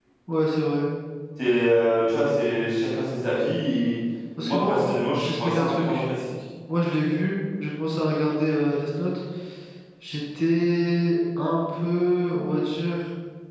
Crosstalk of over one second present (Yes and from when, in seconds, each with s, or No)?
Yes, from 4.4 s